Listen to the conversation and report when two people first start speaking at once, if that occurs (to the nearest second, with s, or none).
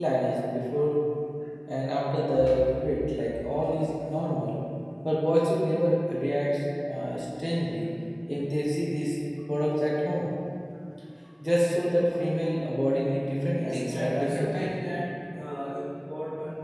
14 s